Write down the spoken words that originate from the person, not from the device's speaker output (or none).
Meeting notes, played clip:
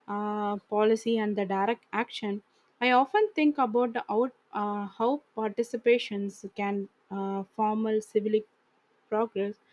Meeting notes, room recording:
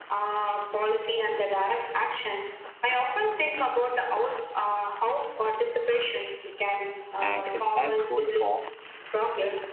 and impactful form